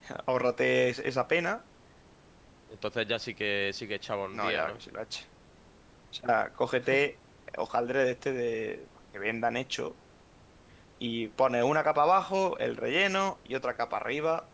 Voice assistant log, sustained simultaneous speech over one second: none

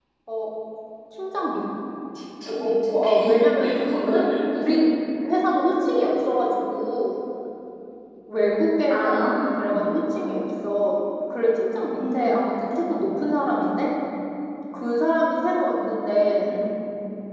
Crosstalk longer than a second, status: present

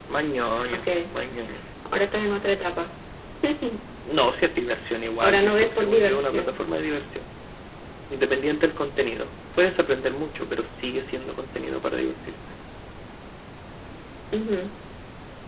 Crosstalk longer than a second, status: present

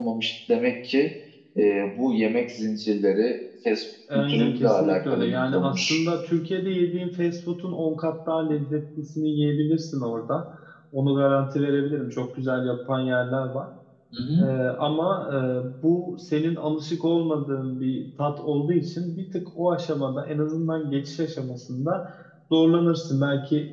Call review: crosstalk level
present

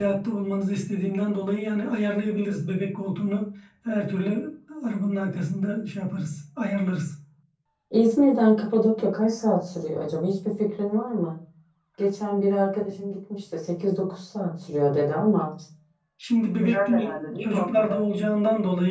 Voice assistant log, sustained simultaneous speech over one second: present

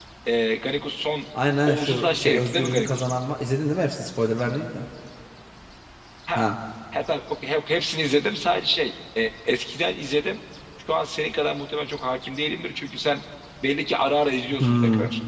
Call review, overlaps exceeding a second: present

